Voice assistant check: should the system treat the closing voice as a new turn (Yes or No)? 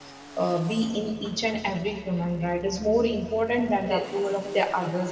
No